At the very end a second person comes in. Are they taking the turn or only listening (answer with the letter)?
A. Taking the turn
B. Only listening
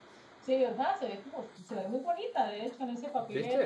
B